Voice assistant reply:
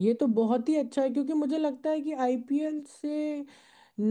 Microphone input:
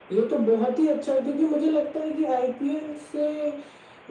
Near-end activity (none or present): none